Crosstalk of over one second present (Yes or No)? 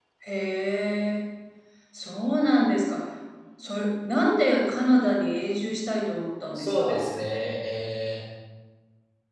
No